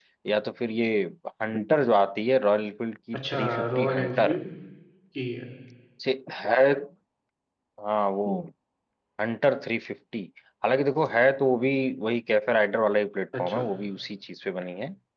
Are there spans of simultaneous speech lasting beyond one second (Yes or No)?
Yes